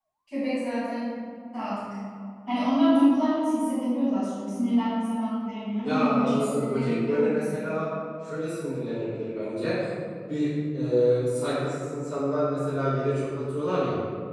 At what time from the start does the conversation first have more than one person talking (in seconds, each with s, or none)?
5.8 s